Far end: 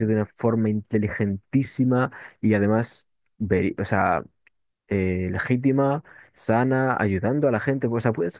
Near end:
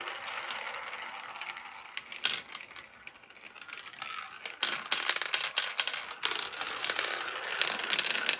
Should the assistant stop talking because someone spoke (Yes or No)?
No